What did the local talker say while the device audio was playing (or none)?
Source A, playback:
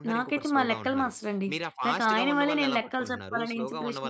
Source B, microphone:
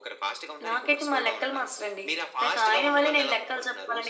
none